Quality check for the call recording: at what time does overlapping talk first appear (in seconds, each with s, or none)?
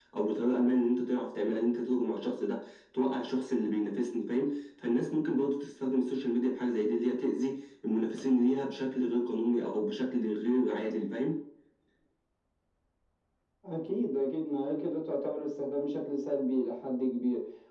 none